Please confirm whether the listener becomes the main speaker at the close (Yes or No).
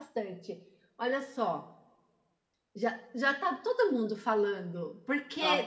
No